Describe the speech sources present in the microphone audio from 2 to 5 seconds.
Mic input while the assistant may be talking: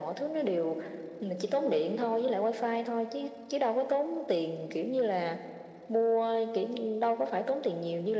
echo only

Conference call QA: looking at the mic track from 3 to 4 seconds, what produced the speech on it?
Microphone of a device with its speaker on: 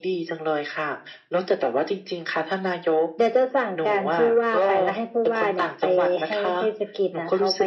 echo only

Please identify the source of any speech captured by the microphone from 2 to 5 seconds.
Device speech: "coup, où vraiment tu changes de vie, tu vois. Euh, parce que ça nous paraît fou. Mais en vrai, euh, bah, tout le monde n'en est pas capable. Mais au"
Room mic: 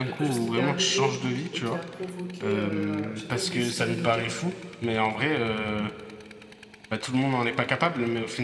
both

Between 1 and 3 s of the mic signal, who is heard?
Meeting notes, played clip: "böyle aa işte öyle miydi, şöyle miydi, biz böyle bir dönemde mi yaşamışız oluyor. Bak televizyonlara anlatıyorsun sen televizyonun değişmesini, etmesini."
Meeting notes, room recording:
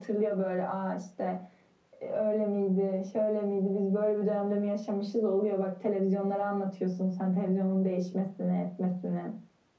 echo only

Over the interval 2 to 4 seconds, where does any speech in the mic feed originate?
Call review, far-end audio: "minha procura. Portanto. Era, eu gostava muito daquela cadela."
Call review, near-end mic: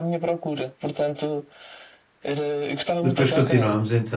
both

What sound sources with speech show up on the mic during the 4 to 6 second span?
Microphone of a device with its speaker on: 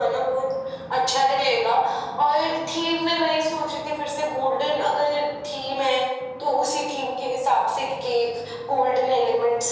echo only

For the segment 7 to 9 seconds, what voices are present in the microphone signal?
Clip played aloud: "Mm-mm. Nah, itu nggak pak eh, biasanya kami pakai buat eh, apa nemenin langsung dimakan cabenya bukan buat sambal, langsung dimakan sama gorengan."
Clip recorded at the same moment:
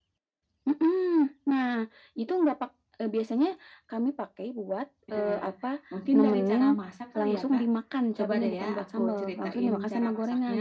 both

